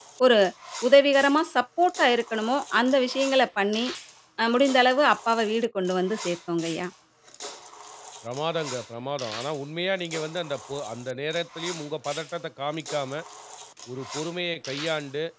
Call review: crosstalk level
none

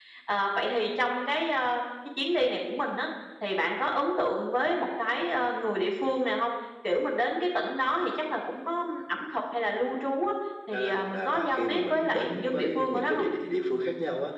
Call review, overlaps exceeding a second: present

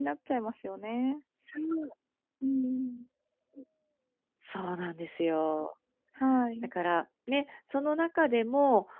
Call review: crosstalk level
none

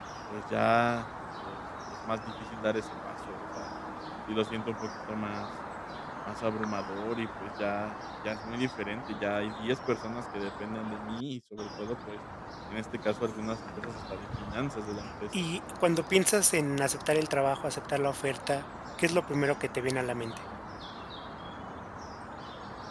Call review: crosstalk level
none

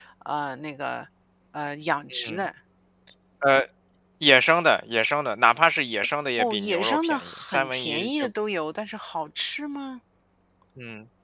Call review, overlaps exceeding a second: present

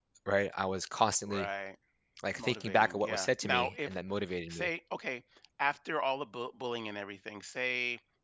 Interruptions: present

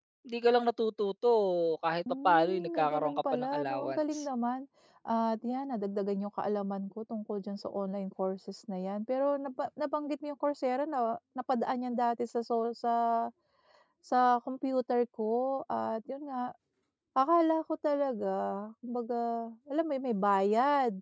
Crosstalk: present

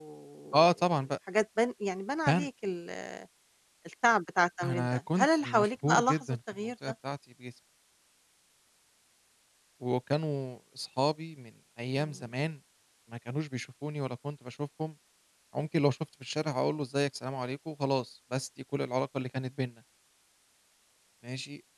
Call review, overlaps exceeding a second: present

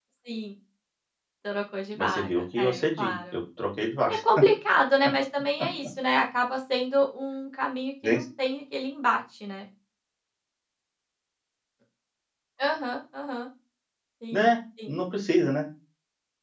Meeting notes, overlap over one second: present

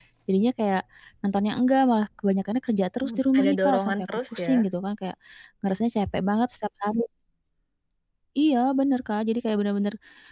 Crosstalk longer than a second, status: present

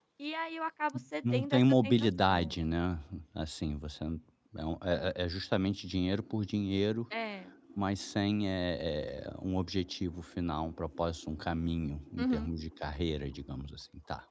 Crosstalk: present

